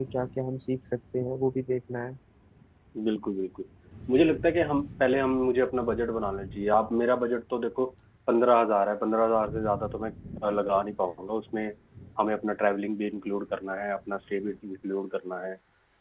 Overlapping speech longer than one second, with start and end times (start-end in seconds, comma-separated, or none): none